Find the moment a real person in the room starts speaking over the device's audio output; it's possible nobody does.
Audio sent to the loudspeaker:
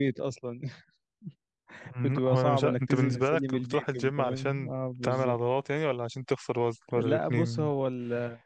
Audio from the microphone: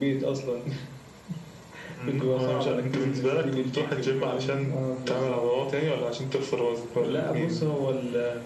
none

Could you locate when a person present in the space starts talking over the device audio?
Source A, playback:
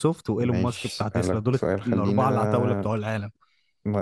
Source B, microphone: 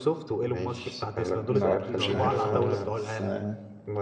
1.4 s

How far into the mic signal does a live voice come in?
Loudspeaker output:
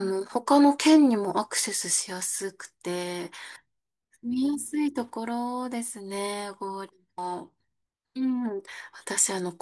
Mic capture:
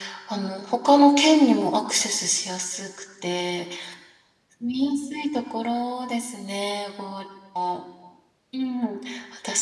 none

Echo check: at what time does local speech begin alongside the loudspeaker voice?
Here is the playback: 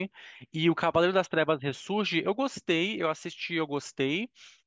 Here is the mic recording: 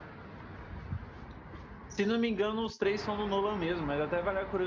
1.9 s

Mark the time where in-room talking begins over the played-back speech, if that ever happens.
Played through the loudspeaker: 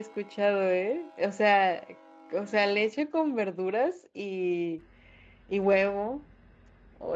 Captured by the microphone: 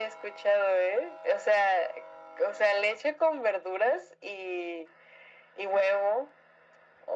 none

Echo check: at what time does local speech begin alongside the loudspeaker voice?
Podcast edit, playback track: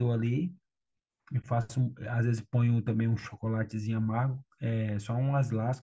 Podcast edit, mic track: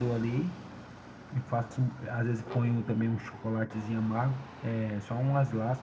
none

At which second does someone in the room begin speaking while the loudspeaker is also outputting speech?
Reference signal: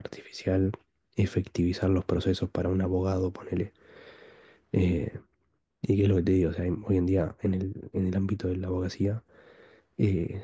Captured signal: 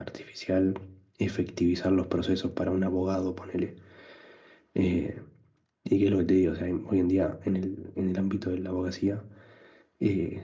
none

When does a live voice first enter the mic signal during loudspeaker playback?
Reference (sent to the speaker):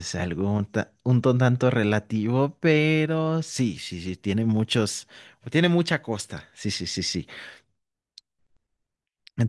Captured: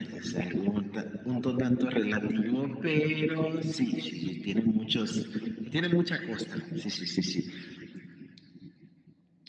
none

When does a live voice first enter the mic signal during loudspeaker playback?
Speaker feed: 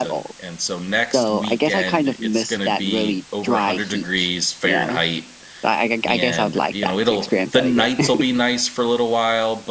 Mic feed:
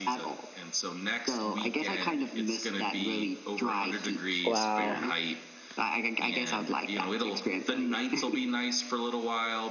4.4 s

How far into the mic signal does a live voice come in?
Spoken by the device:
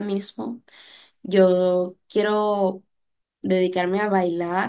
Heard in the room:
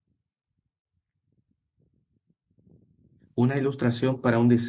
3.3 s

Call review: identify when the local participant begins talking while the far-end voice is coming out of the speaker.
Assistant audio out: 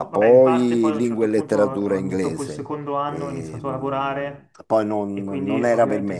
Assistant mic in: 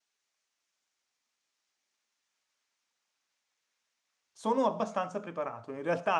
4.3 s

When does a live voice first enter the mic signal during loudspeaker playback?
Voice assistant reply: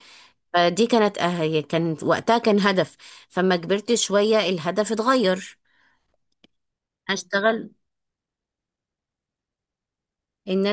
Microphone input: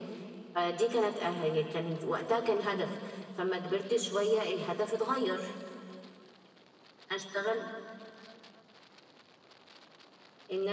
none

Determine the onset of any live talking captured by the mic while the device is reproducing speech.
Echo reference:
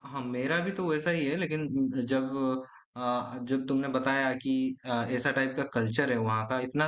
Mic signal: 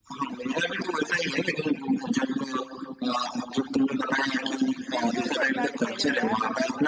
4.9 s

